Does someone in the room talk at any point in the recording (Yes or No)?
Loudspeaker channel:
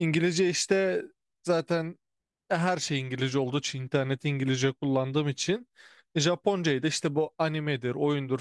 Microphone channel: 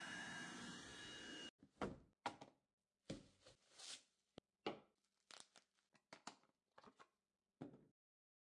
No